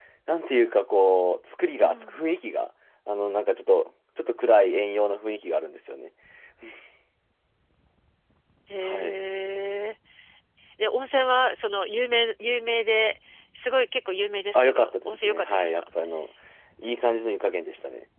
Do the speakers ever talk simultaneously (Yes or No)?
Yes